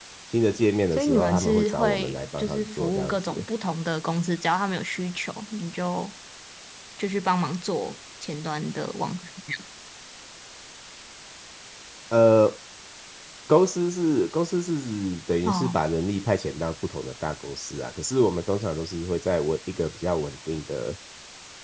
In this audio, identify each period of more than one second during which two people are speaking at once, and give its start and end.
0.9-3.3

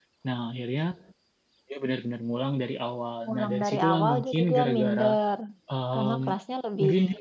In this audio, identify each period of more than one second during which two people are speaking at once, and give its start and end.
3.3-5.0

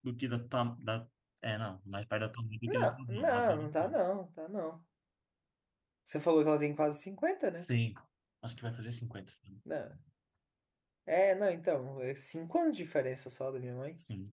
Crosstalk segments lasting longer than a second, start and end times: 2.7-4.0

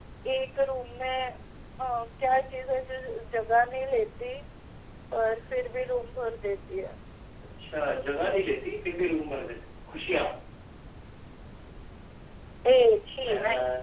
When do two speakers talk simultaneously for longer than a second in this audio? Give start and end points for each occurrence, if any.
none

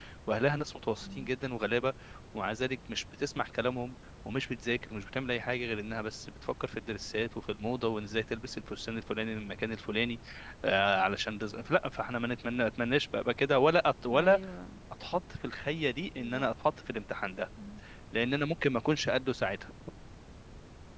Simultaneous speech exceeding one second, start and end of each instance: none

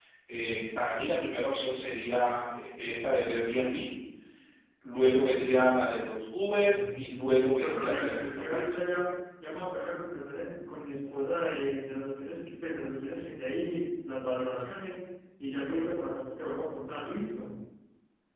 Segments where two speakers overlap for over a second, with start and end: 6.5-8.8

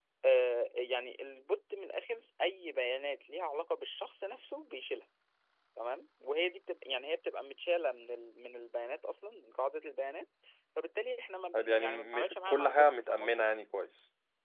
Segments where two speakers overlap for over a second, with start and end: 11.5-13.4

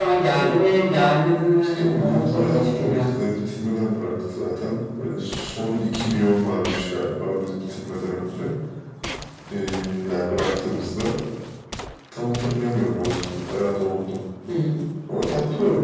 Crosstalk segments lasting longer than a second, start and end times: 1.8-3.2

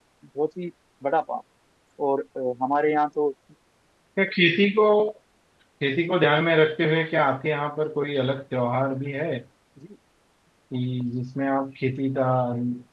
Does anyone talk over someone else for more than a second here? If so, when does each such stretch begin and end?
none

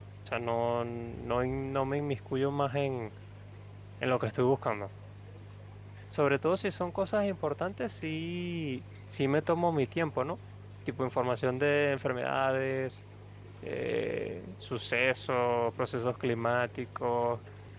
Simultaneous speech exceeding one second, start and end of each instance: none

